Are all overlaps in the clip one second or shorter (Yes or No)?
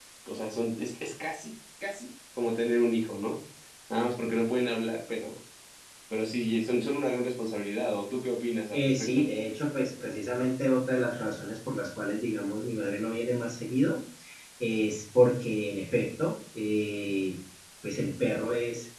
Yes